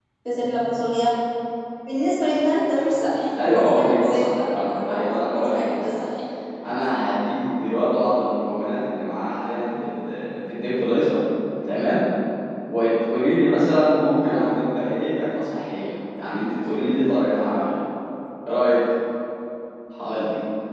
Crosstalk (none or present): present